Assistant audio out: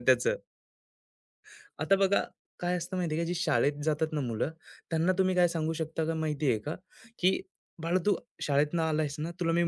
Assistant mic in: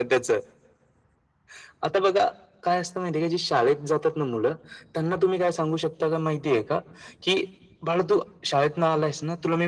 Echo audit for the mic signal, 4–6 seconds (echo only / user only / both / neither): echo only